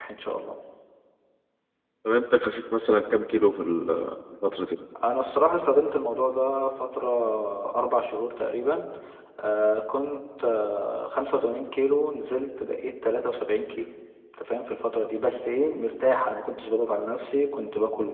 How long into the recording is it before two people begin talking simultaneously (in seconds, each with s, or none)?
none